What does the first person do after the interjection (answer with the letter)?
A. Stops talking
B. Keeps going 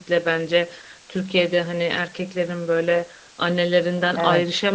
B